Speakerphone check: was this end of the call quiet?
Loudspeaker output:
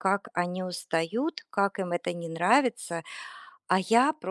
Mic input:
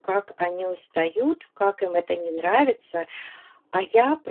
Yes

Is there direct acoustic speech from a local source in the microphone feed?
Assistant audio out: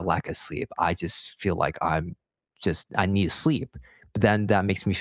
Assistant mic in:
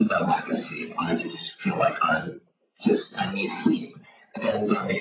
No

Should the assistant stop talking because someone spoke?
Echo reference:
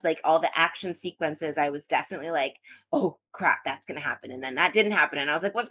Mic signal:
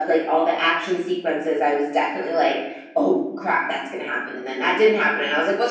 No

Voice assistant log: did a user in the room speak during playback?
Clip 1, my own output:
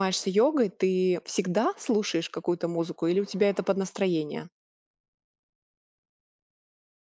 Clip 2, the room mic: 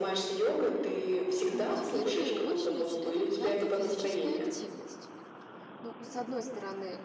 Yes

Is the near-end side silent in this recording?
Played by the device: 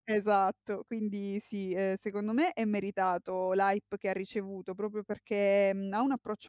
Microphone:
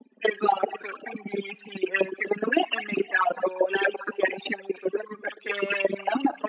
Yes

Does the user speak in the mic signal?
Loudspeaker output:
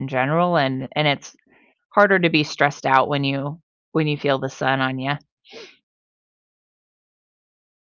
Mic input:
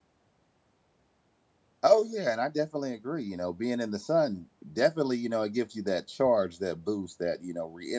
Yes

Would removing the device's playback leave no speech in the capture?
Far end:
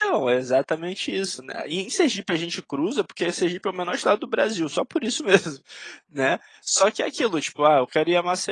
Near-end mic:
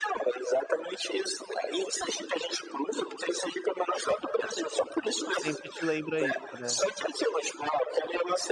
No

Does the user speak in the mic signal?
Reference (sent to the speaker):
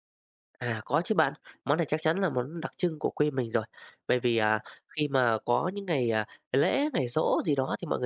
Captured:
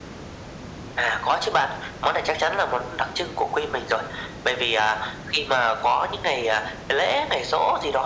No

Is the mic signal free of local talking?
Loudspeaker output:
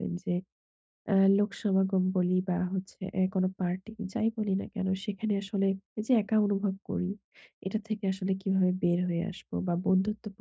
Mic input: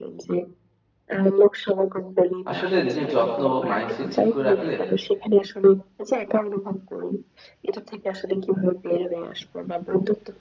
No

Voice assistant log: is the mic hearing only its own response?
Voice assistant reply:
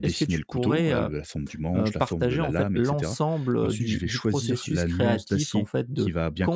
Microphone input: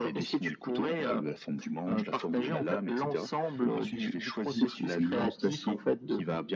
Yes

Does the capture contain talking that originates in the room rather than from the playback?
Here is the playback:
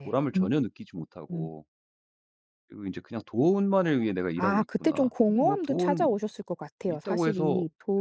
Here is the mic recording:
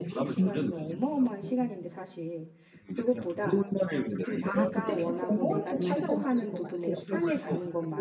Yes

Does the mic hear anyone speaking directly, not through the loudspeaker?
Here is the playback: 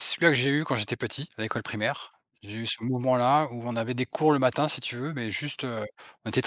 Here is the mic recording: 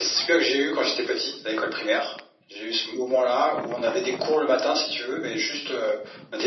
No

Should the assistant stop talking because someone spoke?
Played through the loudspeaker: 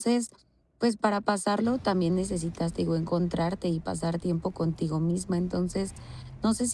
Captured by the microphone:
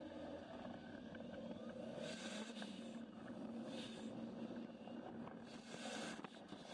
No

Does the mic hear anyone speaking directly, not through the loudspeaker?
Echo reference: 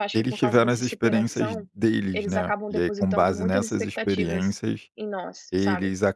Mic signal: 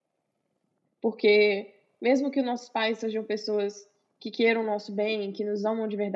Yes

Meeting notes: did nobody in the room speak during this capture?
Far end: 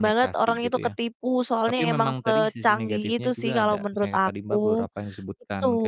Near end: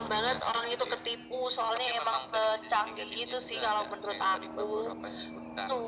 Yes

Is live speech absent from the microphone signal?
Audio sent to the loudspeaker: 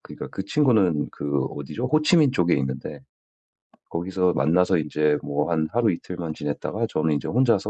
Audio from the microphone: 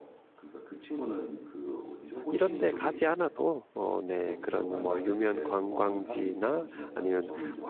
No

